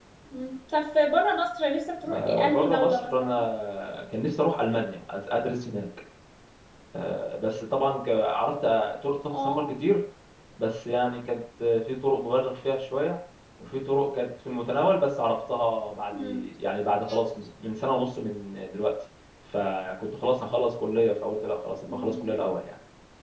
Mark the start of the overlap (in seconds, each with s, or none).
2.1 s